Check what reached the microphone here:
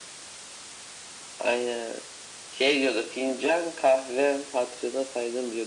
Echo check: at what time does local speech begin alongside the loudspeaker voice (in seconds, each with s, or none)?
none